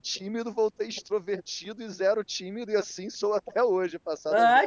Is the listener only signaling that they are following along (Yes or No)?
No